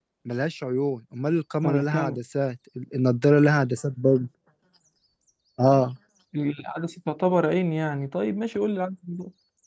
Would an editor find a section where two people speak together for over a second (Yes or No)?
No